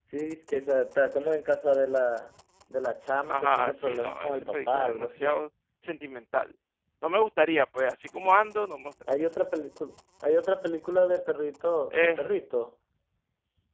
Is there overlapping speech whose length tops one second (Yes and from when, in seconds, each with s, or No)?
Yes, from 3.3 s